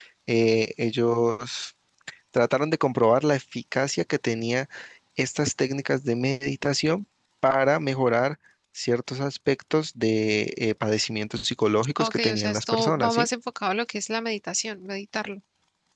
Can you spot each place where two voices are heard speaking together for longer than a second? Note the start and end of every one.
12.0-13.3

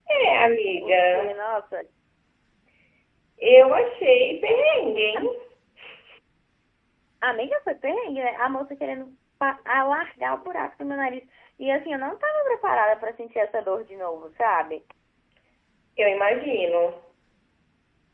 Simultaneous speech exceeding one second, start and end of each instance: none

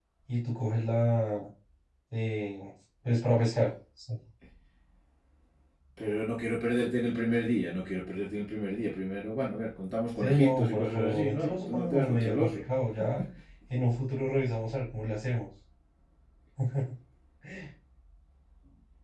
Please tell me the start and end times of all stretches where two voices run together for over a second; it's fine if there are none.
10.2-12.6

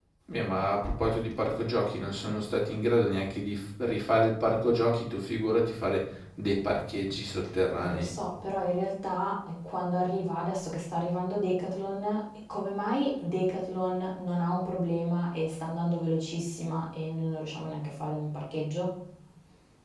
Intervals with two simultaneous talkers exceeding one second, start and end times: none

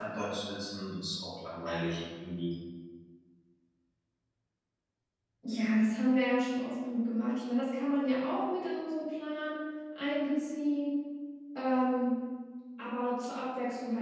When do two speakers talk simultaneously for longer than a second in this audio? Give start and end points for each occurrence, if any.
none

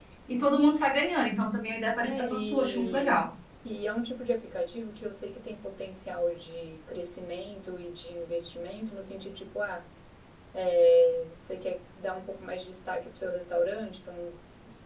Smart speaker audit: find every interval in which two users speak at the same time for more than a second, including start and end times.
2.0-3.3

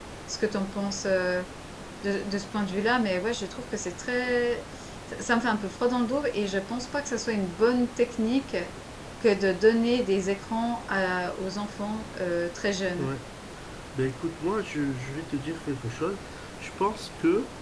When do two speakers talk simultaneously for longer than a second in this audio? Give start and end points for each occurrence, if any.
none

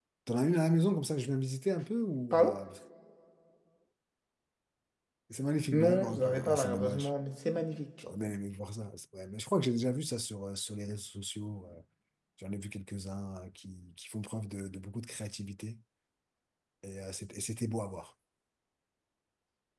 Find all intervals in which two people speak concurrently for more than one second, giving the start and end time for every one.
5.7-7.1

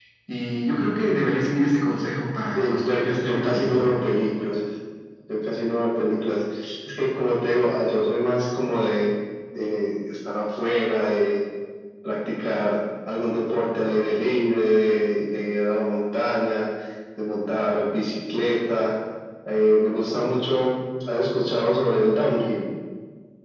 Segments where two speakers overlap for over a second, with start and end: 2.5-4.0

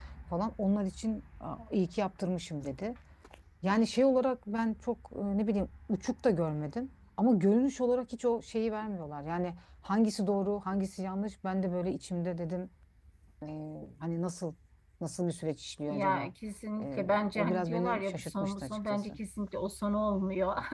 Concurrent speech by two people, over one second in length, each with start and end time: 16.8-19.1

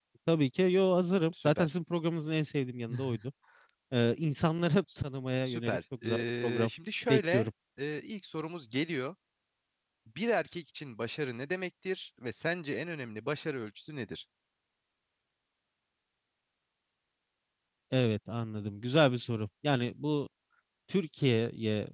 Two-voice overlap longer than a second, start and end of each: 5.5-6.7

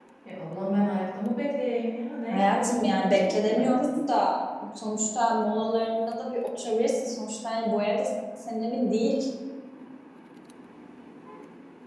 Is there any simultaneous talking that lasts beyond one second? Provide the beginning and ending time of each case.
2.3-3.8

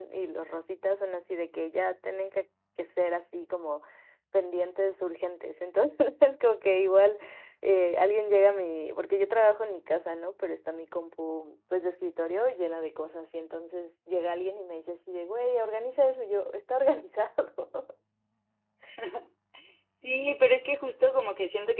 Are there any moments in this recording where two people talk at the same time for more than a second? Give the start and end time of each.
none

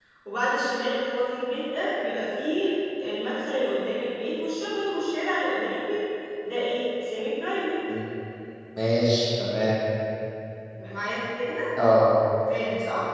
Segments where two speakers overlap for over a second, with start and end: none

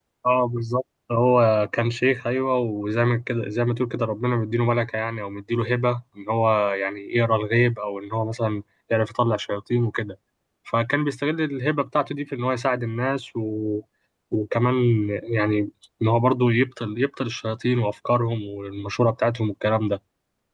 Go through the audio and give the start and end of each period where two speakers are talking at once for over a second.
none

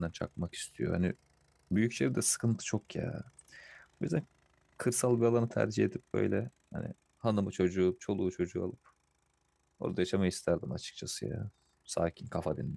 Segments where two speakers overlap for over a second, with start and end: none

